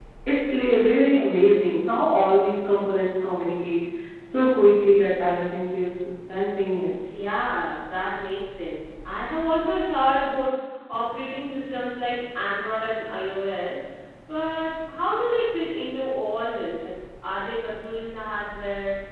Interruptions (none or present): none